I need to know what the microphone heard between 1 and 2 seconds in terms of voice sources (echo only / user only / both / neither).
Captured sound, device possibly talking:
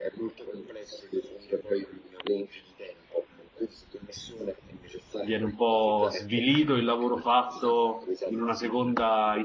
echo only